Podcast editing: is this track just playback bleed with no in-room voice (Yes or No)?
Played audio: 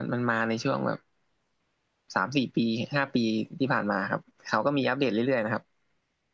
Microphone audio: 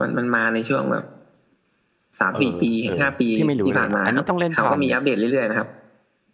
No